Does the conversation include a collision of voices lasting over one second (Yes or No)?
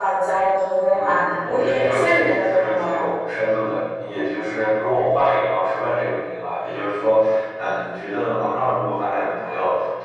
Yes